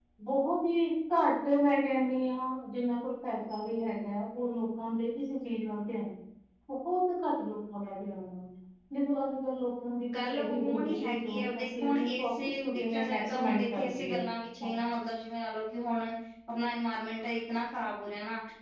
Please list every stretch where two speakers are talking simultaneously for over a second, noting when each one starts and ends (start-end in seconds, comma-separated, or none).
10.2-14.2